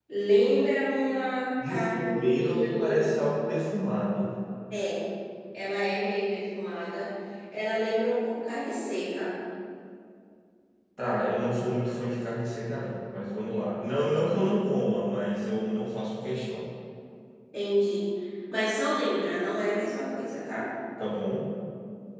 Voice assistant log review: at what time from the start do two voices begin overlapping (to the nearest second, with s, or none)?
2 s